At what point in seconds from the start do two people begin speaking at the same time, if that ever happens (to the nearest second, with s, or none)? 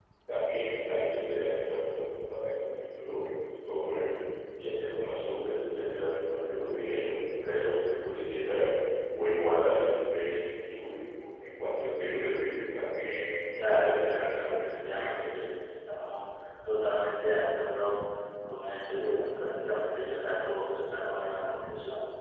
14 s